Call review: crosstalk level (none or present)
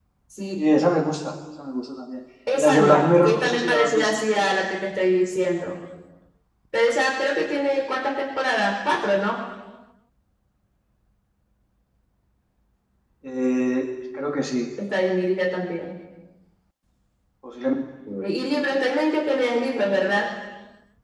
present